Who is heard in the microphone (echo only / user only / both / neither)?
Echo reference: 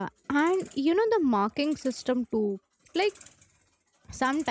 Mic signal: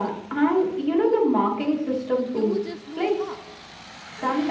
both